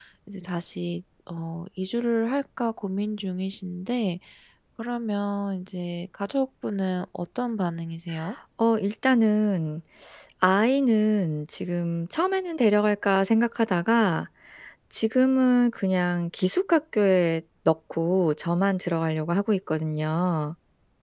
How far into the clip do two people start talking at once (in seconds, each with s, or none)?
none